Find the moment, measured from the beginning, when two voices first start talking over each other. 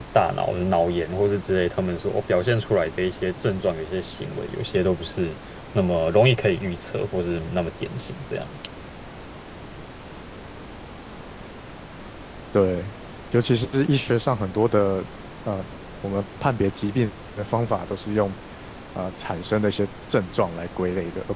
none

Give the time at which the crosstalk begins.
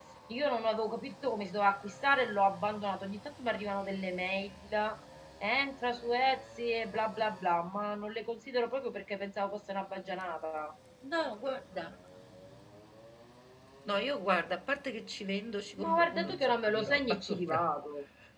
16 s

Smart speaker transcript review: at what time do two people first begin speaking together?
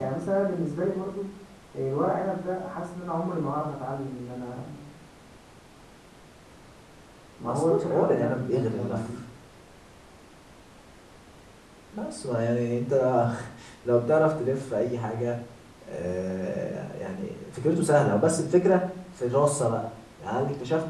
7 s

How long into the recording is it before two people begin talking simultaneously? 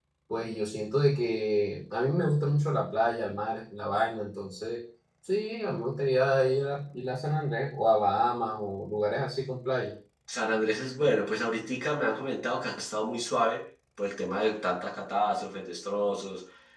none

